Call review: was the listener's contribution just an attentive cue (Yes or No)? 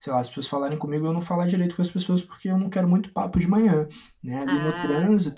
Yes